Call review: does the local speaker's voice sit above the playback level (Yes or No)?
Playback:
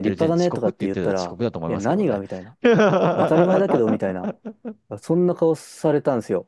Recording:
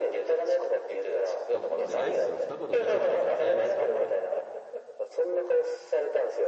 No